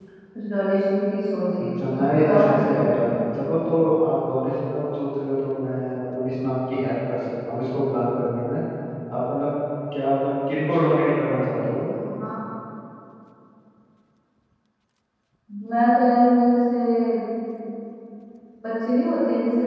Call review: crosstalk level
present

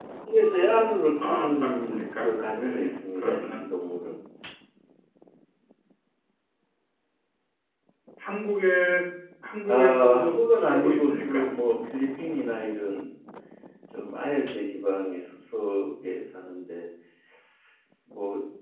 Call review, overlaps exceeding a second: present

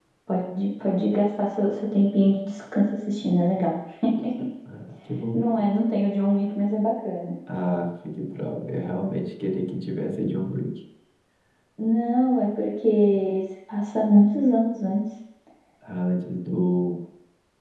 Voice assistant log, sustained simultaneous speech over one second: none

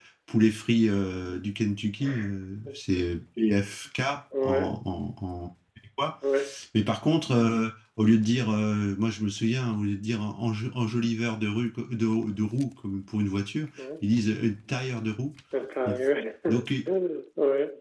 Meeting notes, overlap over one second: none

